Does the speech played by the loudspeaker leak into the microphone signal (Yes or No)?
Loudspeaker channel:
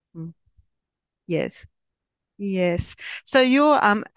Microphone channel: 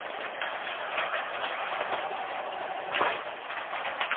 No